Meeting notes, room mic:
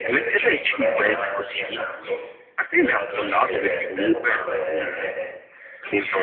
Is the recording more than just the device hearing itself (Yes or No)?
Yes